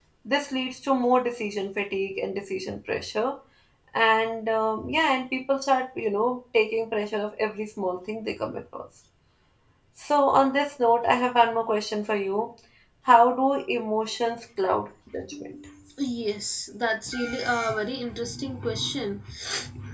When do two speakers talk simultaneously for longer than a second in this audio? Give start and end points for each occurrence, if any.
none

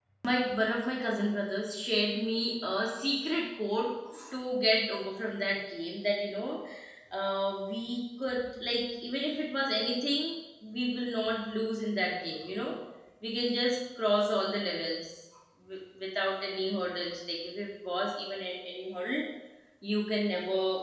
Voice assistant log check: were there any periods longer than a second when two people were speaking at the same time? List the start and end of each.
none

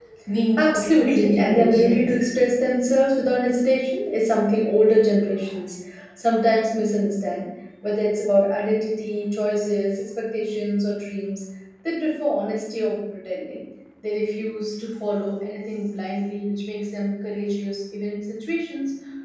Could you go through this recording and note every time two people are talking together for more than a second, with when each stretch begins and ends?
0.6-2.1

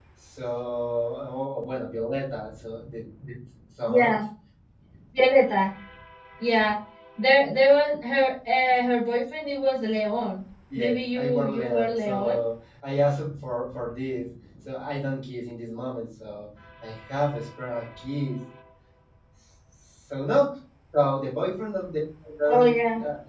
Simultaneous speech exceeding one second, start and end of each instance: 10.8-12.4

